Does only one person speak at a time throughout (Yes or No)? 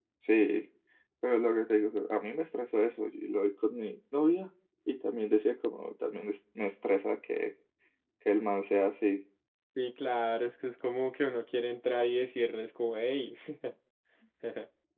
Yes